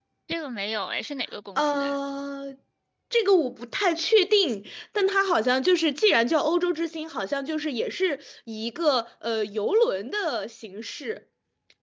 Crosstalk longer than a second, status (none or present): none